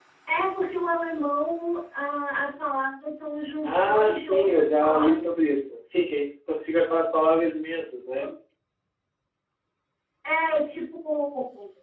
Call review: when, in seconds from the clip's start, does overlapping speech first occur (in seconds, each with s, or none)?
3.6 s